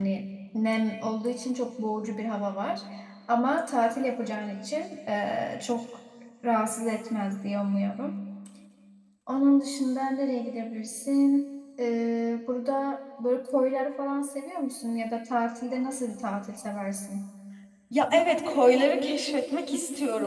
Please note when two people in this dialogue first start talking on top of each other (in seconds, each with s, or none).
none